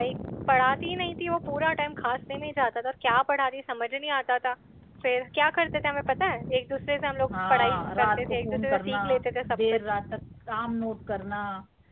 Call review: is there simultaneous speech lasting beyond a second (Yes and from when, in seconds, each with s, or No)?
Yes, from 7.5 s